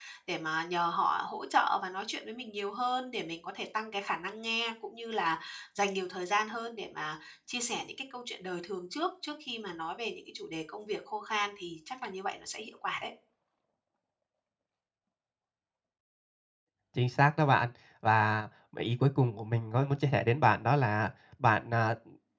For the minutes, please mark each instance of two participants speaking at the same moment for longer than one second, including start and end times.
none

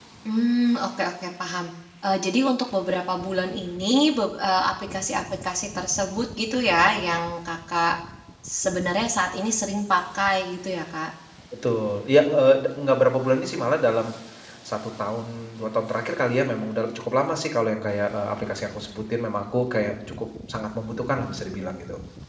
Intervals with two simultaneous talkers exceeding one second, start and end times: none

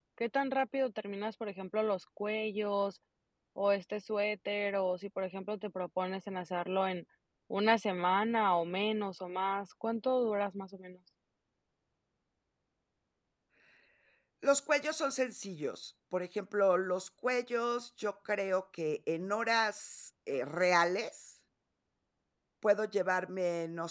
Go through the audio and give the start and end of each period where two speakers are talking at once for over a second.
none

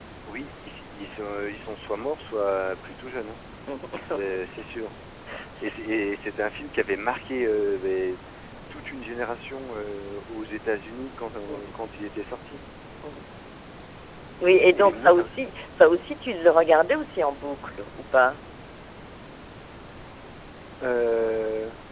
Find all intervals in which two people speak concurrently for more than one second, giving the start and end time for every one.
none

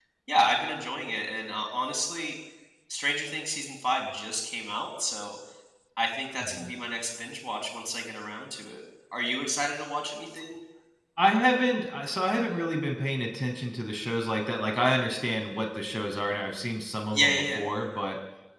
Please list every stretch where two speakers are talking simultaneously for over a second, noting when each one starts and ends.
none

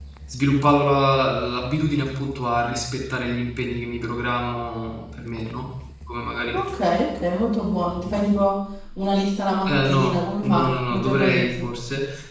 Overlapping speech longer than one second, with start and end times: 9.6-11.6

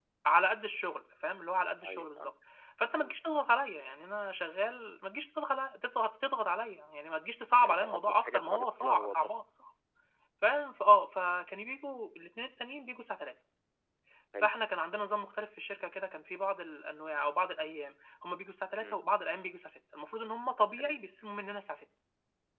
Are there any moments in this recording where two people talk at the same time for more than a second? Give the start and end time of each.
7.6-9.3

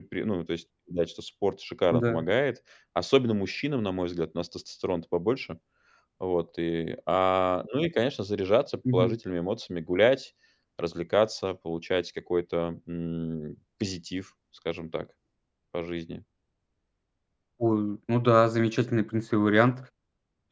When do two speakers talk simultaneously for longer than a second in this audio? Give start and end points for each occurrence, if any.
none

